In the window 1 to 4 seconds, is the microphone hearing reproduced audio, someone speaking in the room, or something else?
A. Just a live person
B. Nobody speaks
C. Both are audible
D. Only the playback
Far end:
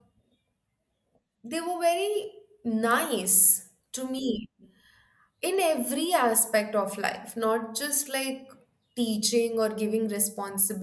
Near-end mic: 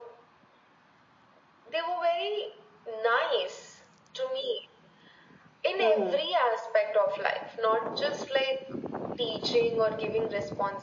D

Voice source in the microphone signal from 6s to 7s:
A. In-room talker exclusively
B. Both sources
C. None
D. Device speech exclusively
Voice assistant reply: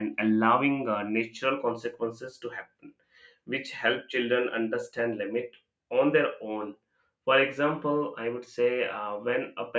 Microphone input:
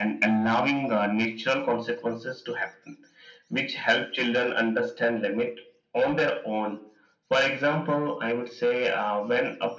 D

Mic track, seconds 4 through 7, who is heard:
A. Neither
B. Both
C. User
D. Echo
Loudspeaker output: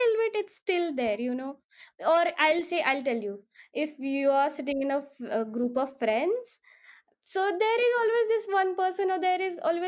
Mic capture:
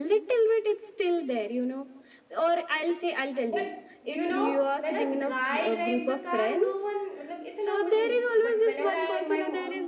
B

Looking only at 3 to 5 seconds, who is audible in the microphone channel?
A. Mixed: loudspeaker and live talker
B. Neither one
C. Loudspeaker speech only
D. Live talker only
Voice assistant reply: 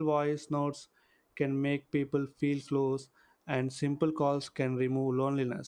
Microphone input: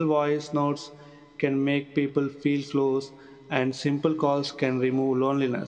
C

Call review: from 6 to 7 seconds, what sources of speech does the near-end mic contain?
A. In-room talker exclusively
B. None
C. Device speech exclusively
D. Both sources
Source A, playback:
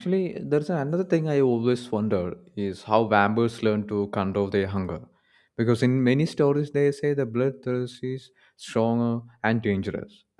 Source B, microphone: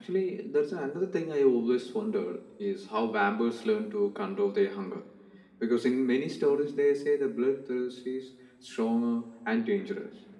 C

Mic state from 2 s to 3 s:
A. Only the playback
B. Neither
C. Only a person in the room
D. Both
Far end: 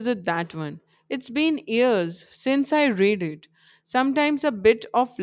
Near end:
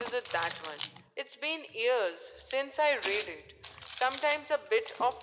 A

